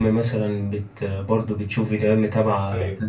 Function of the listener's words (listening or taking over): listening